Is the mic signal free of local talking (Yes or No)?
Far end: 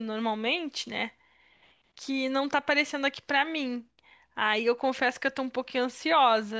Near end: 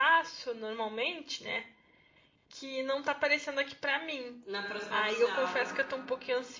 No